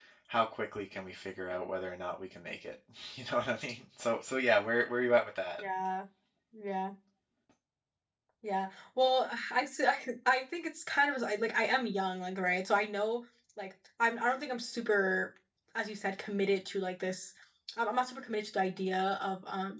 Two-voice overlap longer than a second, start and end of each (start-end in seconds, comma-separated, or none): none